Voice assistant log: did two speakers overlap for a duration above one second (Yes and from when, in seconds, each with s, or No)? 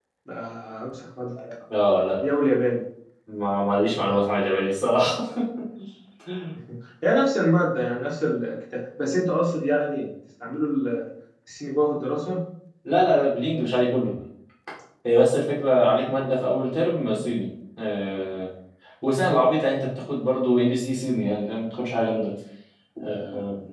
No